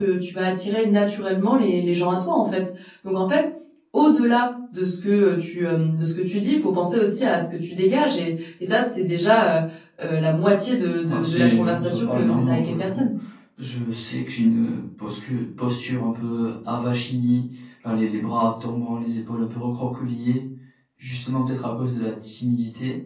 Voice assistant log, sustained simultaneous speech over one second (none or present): present